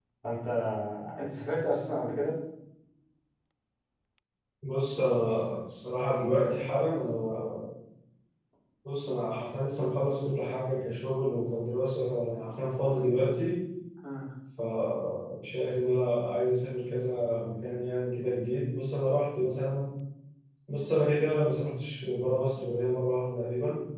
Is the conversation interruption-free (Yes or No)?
Yes